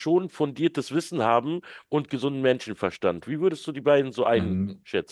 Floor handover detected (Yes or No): Yes